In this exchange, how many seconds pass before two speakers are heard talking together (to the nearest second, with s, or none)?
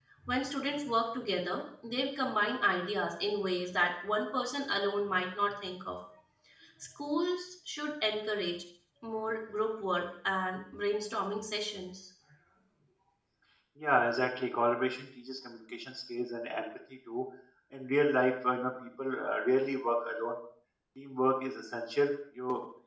none